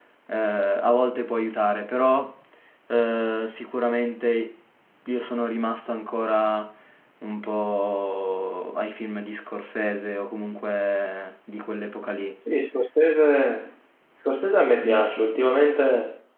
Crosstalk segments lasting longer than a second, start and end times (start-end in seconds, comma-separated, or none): none